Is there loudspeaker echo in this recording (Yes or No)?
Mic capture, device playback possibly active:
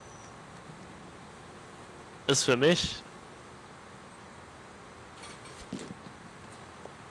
No